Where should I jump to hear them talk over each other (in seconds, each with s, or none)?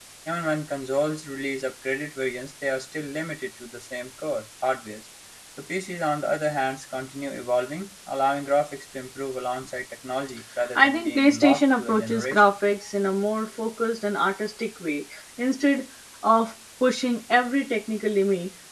10.8 s